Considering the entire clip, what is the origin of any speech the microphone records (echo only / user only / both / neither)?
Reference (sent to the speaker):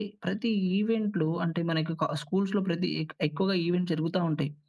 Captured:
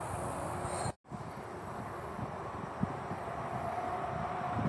neither